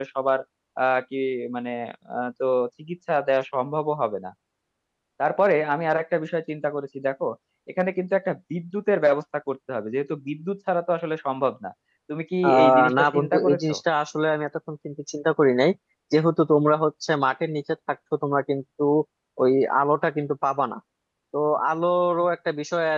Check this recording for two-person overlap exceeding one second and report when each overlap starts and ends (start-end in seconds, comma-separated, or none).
12.4-13.7